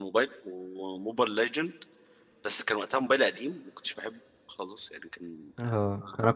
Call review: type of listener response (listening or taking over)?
taking over